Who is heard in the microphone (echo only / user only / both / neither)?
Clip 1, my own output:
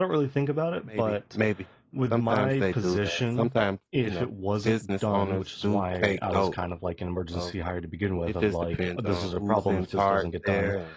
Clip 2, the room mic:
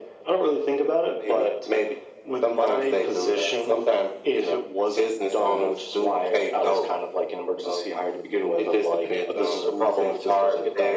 echo only